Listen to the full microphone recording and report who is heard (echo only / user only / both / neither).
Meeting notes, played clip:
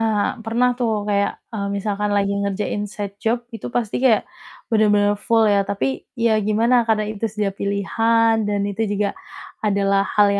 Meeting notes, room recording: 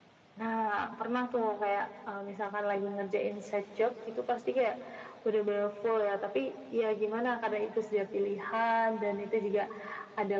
echo only